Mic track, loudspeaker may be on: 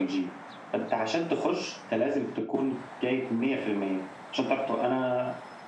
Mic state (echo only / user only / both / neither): echo only